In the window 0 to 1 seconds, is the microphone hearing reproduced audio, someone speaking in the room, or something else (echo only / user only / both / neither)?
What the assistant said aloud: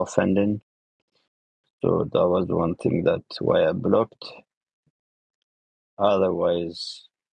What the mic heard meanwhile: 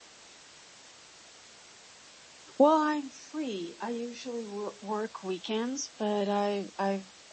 neither